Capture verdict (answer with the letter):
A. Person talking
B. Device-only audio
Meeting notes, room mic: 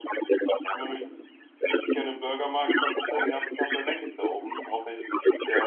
A